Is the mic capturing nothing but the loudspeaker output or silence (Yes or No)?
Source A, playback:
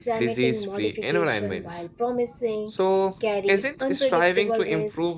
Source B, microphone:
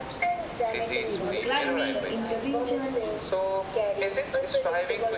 No